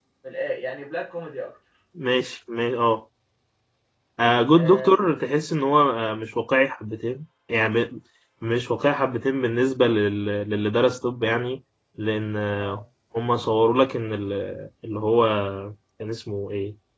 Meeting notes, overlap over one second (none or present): none